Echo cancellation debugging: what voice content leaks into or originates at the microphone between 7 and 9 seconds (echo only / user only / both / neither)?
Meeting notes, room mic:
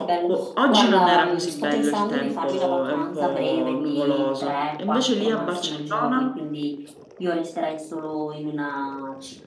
user only